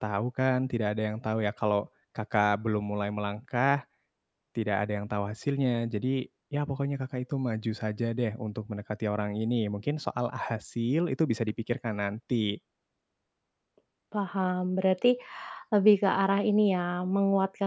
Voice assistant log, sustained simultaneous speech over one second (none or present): none